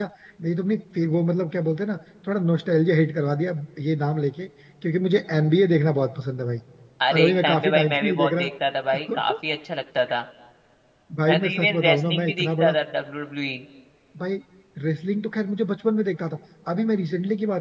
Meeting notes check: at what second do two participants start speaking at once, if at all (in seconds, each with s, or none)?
7.1 s